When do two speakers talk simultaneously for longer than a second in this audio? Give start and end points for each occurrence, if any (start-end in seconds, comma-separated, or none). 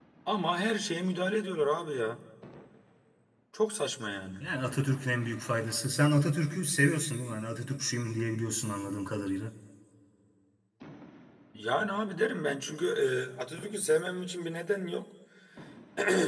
none